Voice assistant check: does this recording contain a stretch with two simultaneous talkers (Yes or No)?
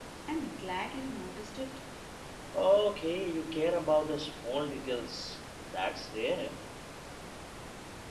No